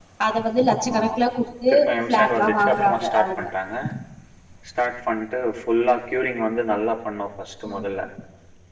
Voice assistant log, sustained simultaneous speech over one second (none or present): present